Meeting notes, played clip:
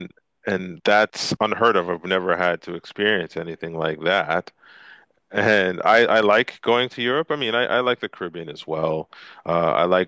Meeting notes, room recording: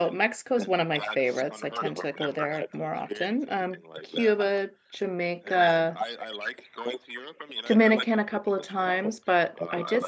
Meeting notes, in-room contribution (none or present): present